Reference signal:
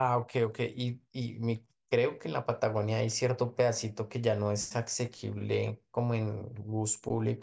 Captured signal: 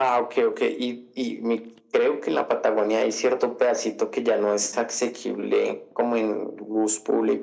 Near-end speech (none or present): none